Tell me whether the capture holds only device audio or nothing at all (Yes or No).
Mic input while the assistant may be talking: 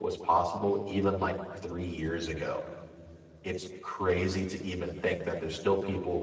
No